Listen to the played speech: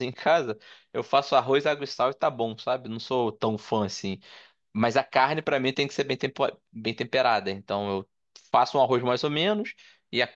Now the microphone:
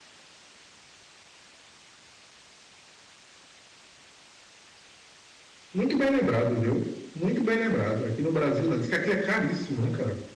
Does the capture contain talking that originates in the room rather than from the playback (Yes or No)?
Yes